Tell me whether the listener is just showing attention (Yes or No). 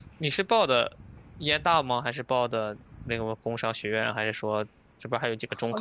No